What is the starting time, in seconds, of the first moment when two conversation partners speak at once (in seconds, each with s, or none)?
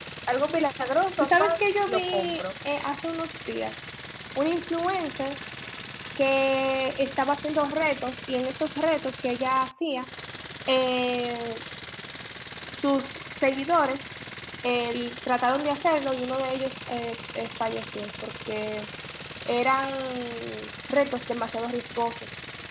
1.2 s